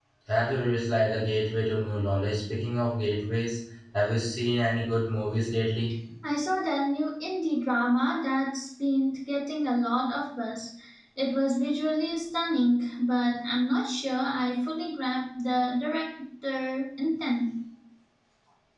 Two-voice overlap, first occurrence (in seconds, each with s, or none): none